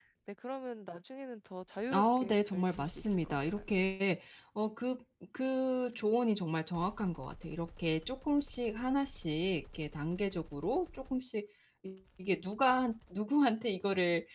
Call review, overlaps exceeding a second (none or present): present